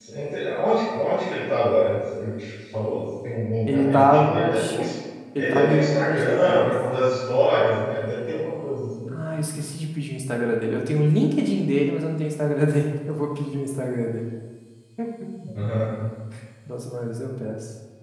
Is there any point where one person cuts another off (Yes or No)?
Yes